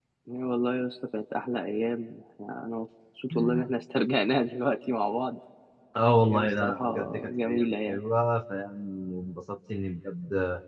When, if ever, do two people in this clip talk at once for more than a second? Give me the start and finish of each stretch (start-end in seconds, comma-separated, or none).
6.2-8.0